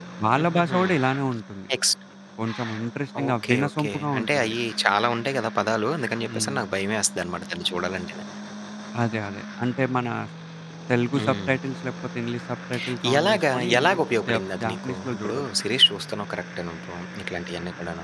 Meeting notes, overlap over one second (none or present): present